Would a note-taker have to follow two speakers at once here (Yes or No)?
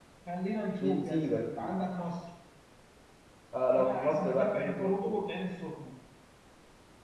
Yes